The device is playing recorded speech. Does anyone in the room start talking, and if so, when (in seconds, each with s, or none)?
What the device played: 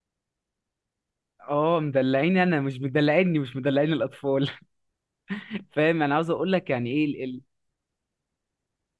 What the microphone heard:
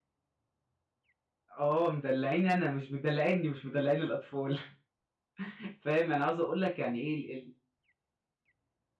none